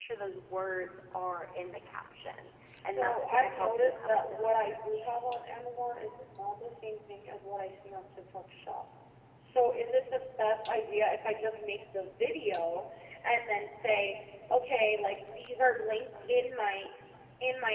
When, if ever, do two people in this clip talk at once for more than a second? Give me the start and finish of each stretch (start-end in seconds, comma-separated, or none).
2.8-5.1